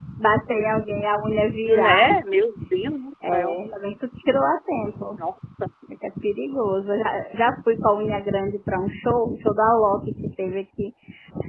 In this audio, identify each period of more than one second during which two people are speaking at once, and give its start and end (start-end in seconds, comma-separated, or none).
none